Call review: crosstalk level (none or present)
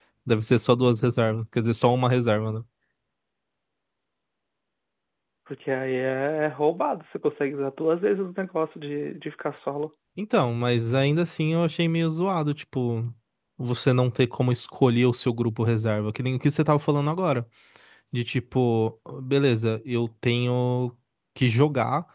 none